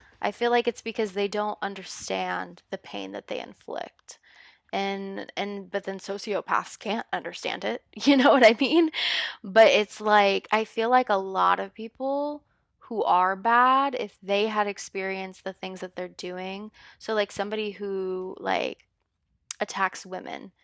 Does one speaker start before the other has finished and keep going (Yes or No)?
No